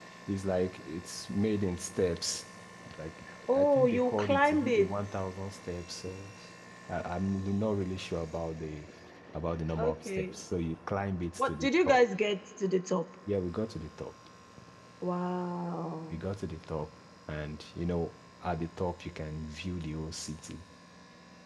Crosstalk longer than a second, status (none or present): present